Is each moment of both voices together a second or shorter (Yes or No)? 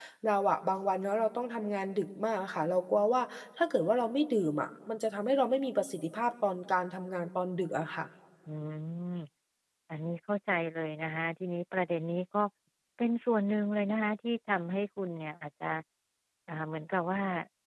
Yes